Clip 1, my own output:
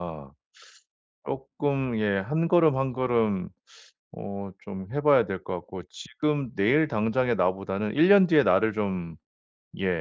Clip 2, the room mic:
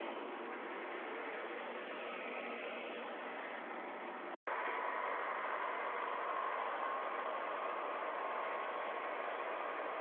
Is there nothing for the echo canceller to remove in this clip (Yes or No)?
Yes